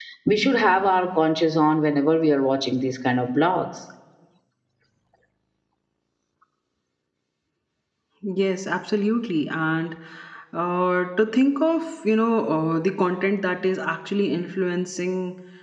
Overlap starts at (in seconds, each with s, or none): none